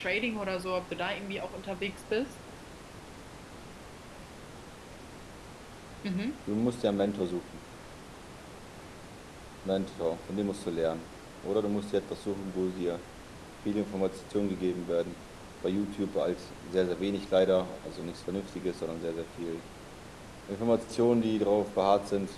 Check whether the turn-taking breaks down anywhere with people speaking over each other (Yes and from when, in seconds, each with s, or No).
No